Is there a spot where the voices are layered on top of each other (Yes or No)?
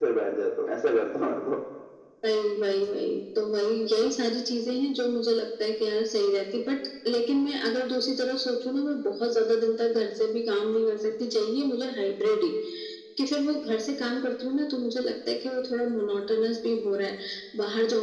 No